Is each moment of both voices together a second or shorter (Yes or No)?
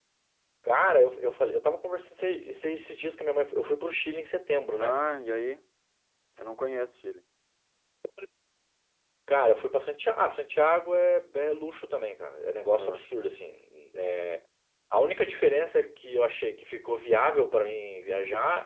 Yes